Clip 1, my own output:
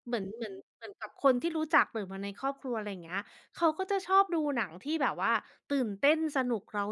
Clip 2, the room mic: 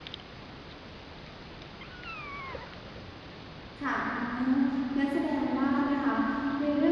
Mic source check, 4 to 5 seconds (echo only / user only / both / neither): user only